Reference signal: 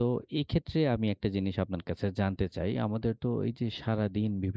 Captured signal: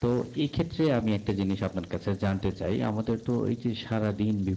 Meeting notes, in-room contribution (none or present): none